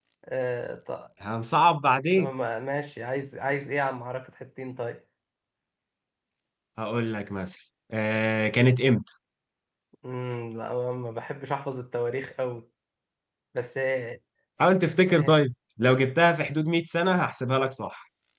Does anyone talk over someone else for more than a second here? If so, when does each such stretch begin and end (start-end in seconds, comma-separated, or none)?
none